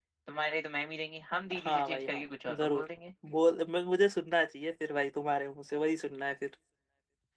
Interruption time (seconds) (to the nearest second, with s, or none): 2 s